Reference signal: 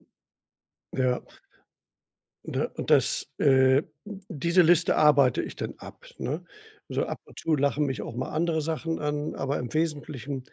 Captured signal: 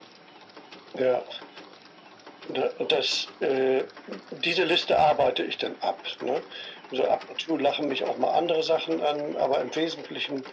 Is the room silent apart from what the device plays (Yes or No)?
Yes